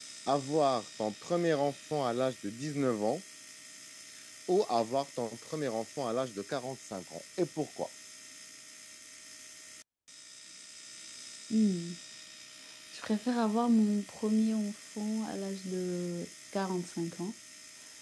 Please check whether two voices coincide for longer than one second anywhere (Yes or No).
No